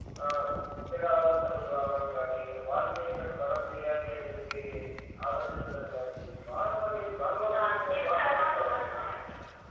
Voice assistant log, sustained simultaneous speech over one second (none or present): present